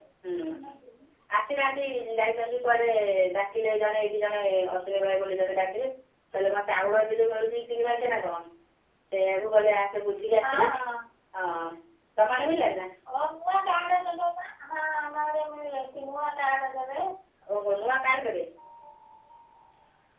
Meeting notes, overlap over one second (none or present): none